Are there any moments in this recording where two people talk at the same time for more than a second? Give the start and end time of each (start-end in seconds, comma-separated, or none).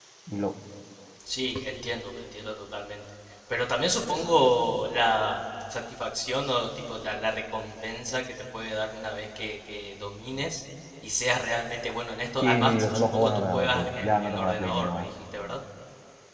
12.4-15.1